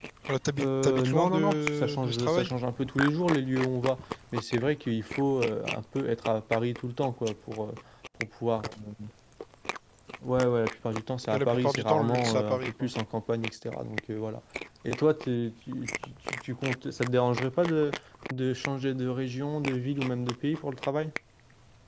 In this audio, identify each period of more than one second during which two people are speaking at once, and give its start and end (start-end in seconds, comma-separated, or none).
0.6-2.5, 11.3-12.9